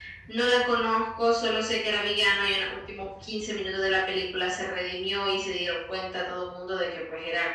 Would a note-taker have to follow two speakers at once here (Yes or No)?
No